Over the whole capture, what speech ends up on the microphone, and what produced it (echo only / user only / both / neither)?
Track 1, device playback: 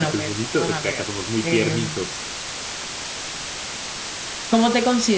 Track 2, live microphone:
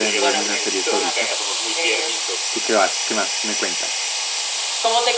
both